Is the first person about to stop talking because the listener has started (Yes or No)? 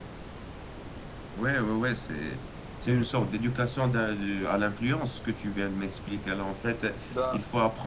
No